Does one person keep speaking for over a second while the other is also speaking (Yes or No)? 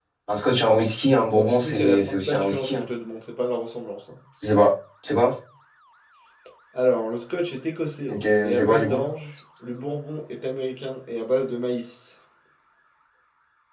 Yes